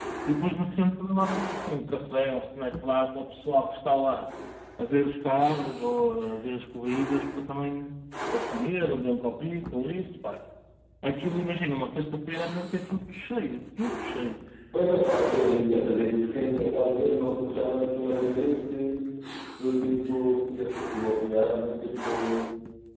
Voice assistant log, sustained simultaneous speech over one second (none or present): none